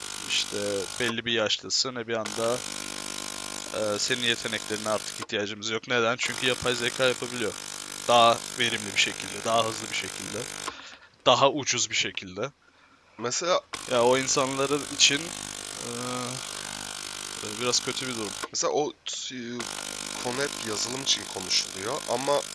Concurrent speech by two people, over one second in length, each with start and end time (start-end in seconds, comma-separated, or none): none